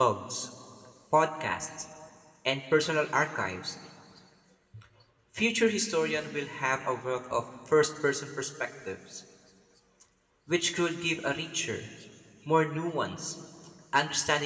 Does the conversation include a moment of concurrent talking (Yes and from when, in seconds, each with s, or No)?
No